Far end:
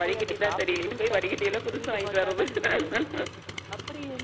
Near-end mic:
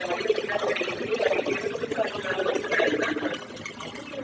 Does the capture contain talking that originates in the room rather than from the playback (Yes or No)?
No